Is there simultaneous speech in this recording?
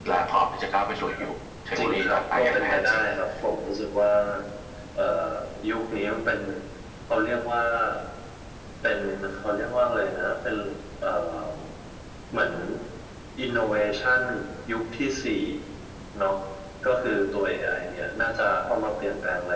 Yes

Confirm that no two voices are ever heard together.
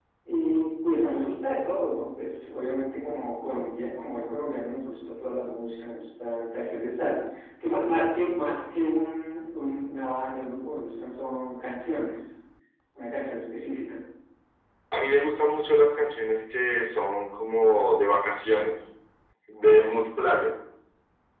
Yes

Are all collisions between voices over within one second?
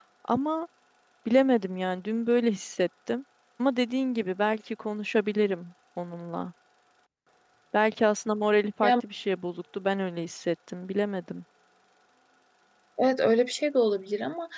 Yes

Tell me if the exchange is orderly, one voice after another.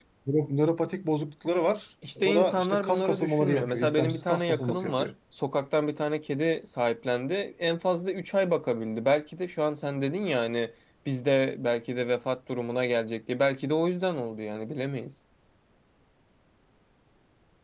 No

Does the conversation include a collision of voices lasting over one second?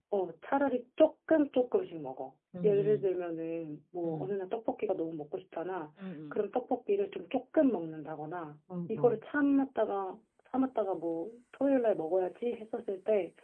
No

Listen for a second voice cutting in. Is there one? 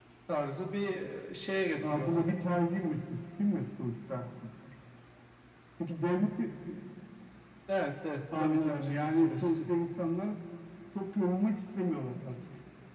Yes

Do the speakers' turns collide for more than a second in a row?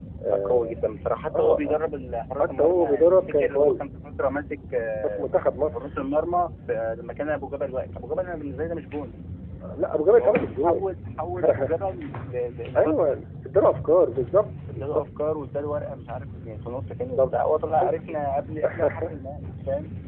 Yes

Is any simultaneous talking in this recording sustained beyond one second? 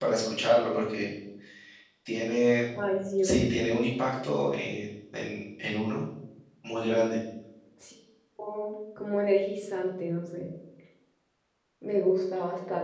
No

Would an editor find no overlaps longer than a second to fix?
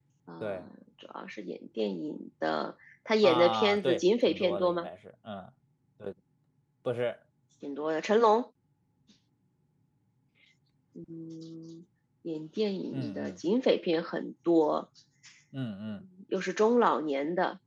No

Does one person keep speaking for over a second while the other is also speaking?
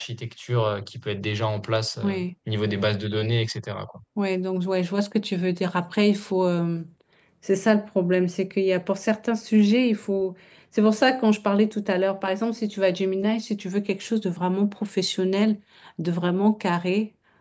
No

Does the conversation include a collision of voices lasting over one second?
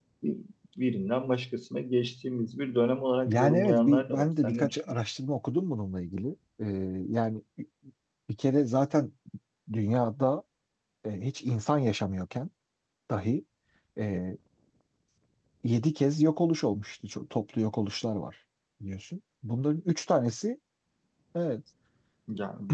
Yes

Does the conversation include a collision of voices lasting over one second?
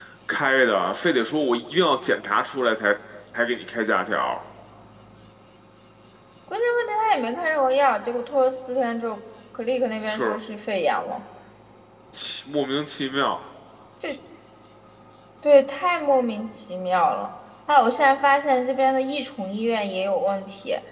No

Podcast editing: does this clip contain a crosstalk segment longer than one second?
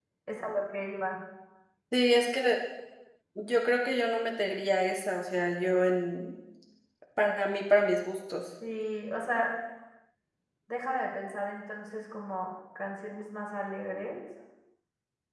No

